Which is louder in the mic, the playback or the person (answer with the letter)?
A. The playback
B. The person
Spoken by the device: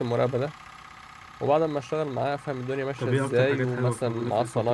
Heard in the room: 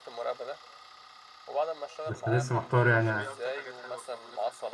B